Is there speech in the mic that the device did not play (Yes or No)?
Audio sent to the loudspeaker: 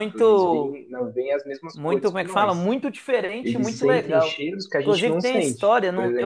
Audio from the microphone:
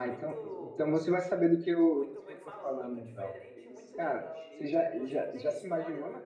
Yes